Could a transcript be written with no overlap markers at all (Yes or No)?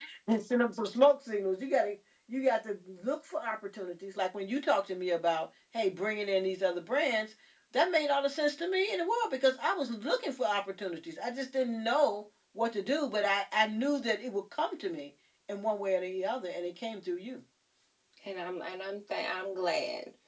Yes